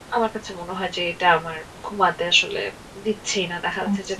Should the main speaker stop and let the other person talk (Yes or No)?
No